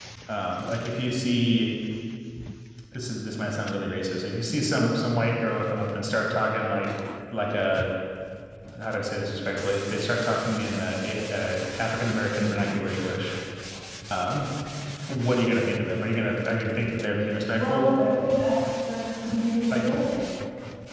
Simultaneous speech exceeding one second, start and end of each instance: none

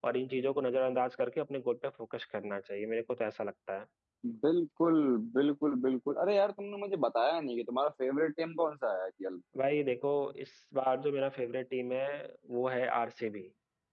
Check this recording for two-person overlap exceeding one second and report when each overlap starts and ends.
none

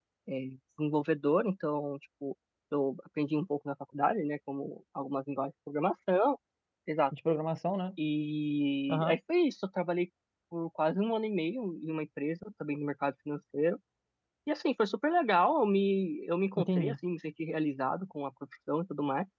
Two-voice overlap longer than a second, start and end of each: none

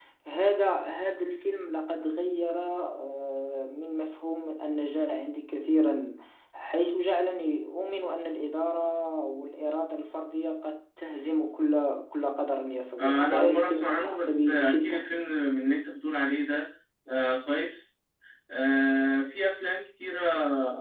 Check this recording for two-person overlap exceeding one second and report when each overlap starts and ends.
13.0-15.0

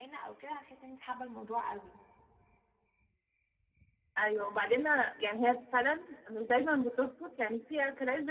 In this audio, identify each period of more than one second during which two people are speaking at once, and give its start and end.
none

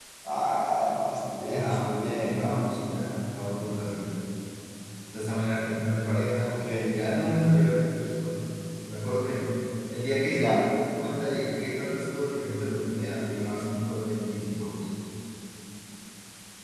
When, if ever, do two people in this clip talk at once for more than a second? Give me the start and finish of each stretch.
1.4-2.6

